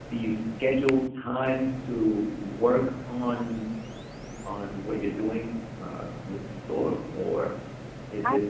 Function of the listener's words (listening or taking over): listening